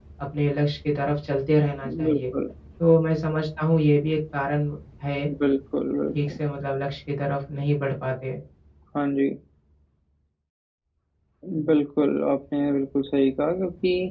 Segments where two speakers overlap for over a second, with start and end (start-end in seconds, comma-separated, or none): none